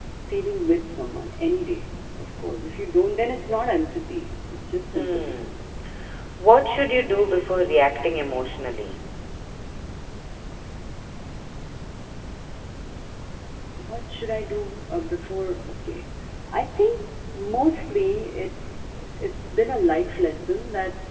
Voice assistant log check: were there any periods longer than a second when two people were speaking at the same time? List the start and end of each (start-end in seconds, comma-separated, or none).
none